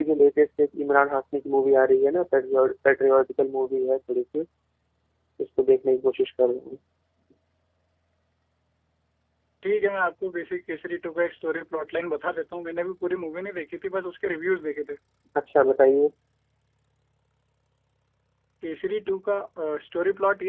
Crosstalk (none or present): none